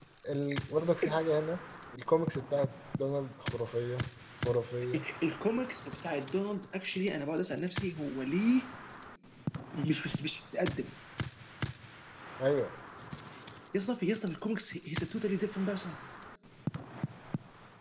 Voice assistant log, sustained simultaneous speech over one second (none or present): none